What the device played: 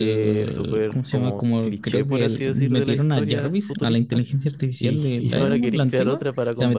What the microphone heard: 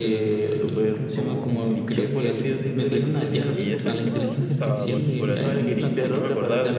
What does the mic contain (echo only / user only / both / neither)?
both